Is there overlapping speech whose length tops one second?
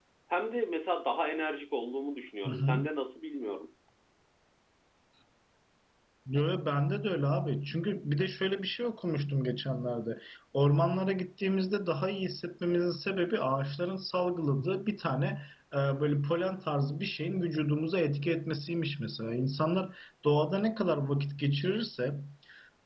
No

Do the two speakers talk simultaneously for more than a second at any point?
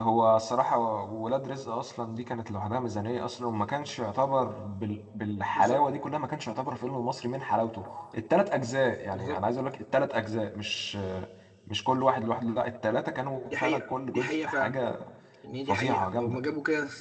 Yes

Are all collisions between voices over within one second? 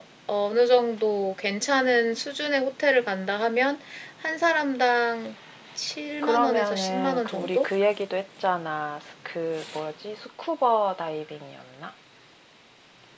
No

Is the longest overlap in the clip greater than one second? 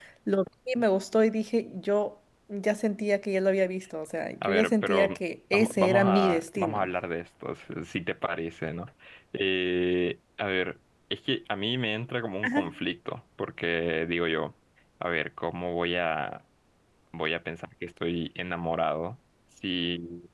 Yes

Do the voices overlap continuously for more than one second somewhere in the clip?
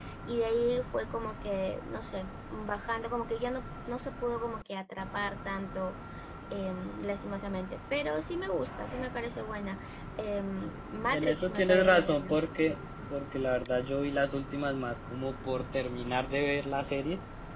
Yes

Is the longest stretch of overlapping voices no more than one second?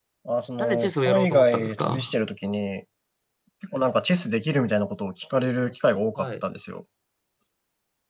No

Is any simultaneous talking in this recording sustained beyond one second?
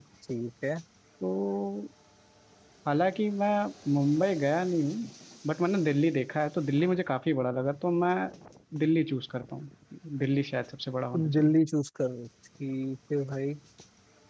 No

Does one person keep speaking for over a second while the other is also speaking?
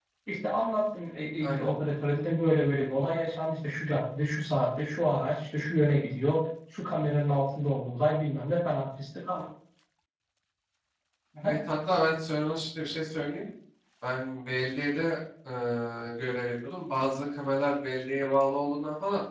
No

